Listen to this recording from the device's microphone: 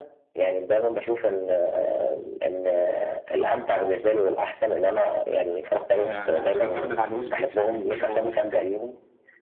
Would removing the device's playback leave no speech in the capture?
No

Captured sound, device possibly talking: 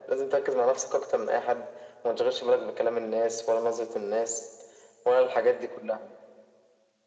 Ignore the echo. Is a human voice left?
No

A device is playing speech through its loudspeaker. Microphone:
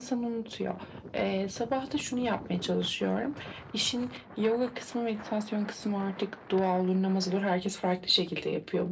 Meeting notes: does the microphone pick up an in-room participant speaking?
No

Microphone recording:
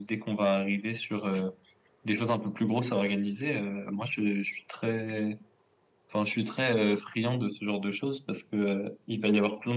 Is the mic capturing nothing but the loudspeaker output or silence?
Yes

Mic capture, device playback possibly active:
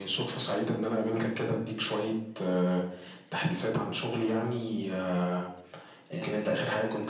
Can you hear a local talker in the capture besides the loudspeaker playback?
Yes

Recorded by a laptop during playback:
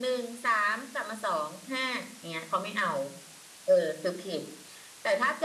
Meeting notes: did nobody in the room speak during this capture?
Yes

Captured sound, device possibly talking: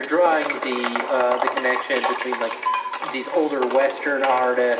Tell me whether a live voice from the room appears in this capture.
No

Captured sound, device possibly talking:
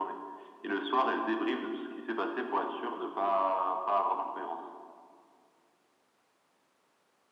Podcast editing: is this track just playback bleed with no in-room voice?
Yes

